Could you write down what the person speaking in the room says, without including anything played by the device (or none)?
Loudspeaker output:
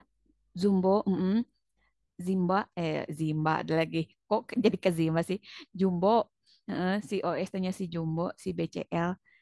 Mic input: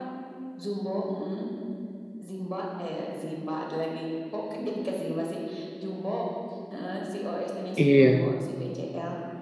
Iya